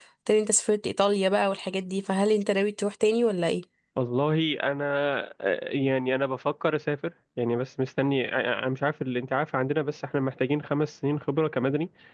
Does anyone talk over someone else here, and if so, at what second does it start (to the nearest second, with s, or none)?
none